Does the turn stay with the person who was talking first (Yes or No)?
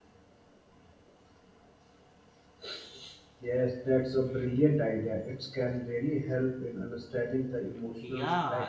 No